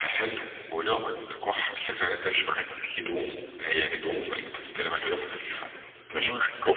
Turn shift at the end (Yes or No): No